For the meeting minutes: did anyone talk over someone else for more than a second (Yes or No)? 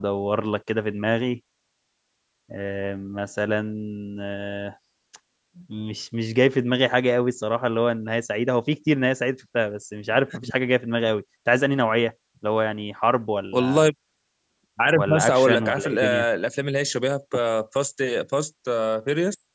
Yes